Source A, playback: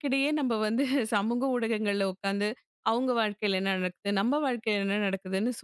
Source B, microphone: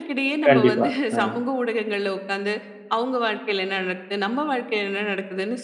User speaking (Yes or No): Yes